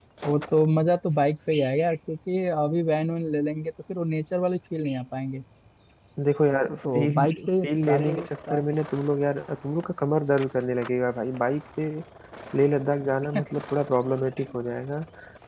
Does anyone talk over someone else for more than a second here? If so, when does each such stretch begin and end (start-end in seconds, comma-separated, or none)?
6.8-8.6